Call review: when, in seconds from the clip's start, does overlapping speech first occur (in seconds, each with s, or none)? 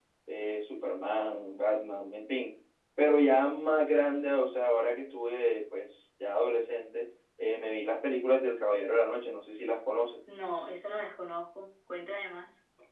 none